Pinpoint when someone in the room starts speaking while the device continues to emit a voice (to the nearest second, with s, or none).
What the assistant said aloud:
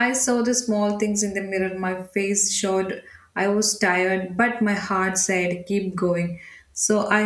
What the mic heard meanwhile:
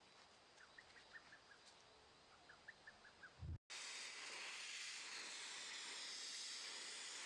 none